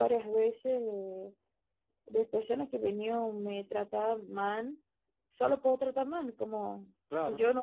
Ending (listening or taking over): listening